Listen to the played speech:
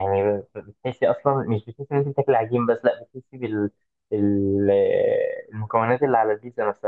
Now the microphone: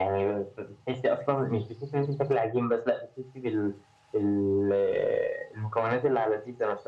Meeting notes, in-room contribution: none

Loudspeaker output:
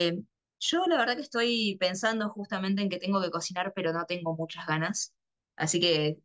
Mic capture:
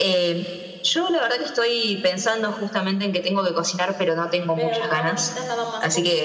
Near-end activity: present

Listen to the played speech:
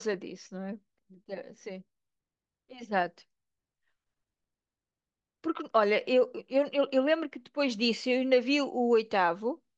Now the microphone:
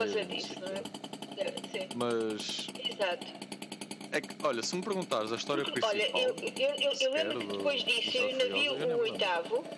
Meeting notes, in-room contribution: present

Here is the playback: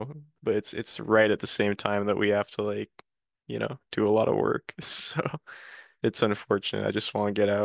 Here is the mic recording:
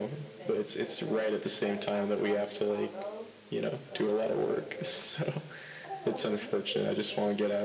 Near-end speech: present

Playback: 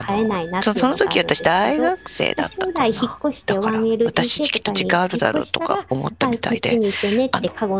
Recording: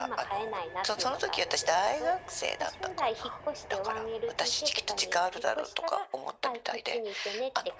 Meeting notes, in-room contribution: none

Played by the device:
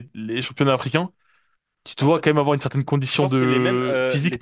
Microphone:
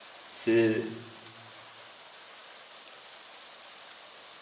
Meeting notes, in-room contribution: present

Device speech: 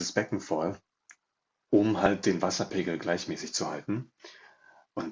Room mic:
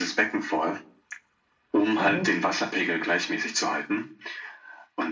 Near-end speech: present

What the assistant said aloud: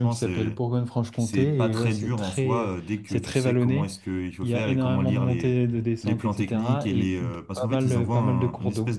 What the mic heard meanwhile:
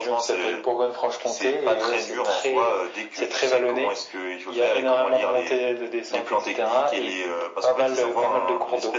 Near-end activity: none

